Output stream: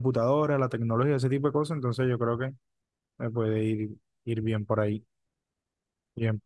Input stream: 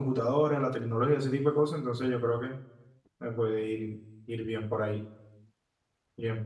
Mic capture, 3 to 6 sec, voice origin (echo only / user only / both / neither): echo only